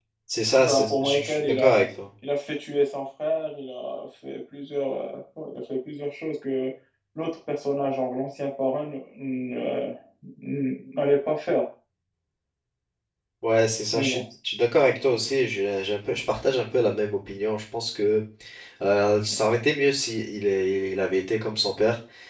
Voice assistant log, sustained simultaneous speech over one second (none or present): present